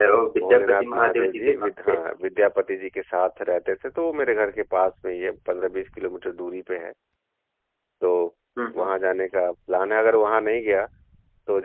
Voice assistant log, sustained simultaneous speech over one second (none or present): present